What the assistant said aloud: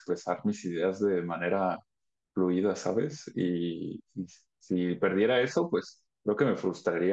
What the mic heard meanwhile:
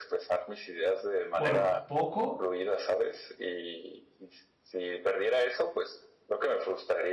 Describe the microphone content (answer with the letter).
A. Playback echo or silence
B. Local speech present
B